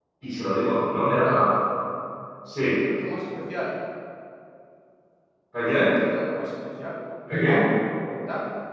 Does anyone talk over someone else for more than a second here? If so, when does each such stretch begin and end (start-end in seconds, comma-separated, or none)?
none